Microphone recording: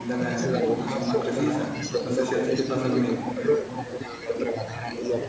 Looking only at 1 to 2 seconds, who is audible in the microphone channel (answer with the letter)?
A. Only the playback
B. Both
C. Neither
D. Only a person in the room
B